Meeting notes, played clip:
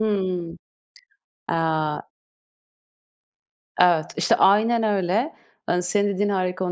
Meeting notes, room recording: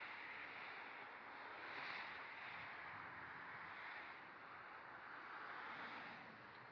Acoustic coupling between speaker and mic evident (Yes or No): No